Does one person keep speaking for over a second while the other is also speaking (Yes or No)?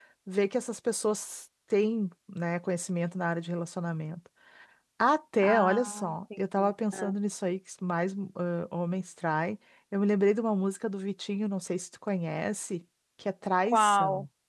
Yes